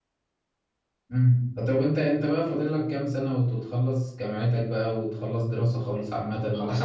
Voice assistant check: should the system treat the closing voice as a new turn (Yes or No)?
Yes